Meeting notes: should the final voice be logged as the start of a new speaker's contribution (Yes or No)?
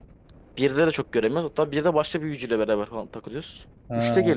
No